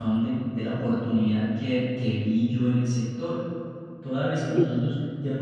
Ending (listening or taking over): listening